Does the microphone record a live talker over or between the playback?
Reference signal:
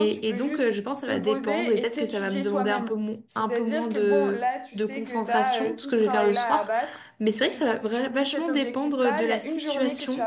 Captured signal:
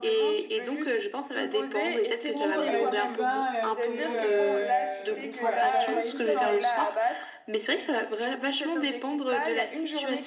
Yes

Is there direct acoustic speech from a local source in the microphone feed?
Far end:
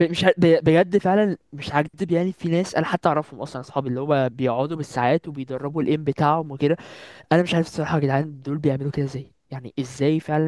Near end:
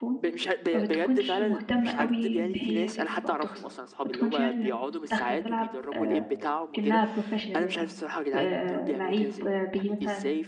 Yes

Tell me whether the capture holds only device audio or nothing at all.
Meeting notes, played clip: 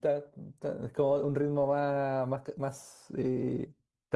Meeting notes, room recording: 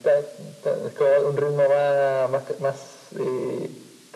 Yes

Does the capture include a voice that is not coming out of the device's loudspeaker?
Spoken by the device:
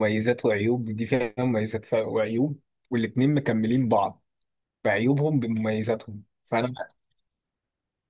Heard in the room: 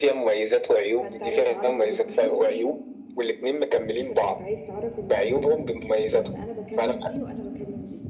Yes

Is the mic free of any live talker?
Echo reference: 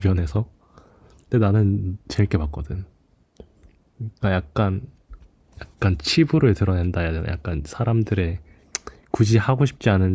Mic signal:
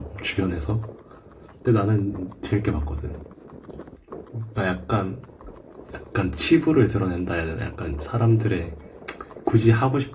Yes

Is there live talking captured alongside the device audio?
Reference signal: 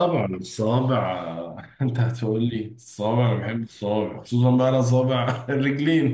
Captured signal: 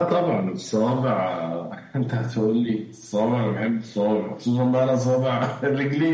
No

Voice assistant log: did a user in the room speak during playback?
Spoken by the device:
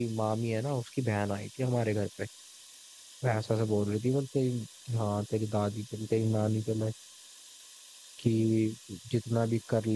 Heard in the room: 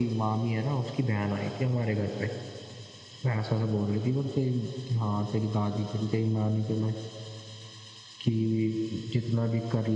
No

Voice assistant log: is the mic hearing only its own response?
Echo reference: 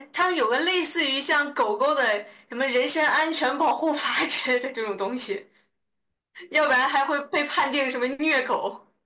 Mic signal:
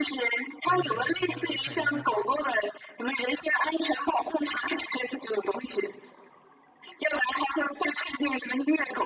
No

